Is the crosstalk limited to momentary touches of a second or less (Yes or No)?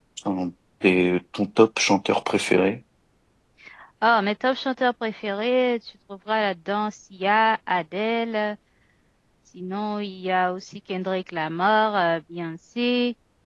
Yes